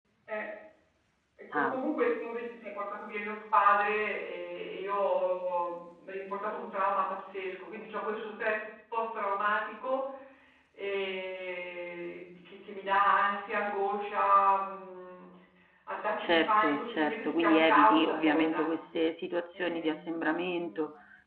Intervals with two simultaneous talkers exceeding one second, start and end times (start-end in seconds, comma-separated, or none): 16.2-18.7